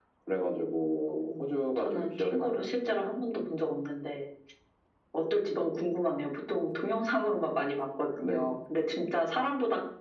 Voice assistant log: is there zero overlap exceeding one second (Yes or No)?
No